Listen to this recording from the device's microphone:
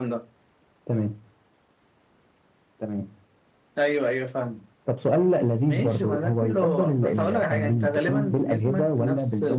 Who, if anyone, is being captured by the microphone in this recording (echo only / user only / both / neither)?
echo only